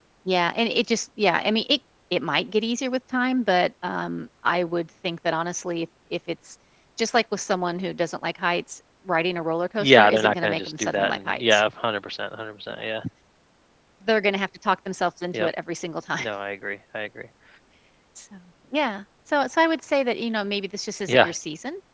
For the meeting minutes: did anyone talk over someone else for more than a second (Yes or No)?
Yes